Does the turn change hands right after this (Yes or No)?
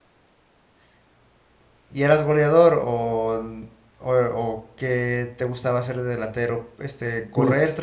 No